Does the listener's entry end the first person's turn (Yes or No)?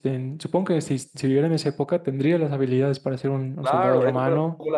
Yes